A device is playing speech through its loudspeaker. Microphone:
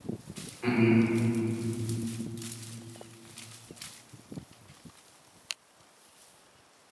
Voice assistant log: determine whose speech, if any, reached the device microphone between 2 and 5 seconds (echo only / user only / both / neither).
neither